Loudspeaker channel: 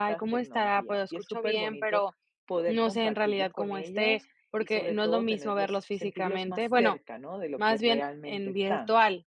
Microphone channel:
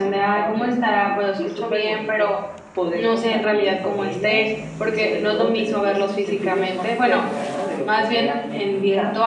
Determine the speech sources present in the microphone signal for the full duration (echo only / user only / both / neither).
echo only